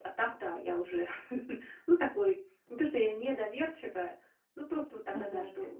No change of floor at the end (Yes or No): No